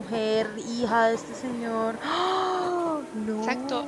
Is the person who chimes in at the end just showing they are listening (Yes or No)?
No